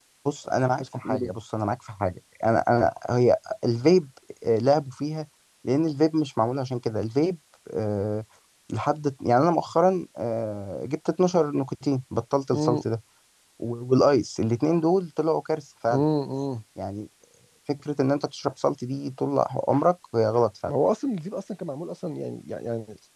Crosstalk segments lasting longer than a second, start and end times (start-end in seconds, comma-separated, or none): none